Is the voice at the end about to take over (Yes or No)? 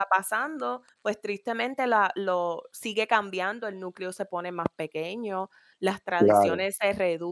No